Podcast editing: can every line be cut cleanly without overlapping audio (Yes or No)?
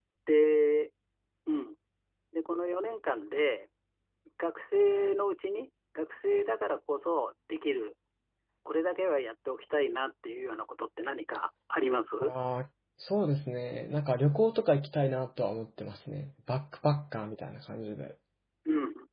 Yes